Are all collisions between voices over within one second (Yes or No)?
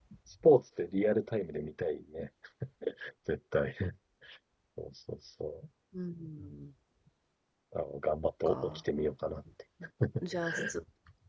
Yes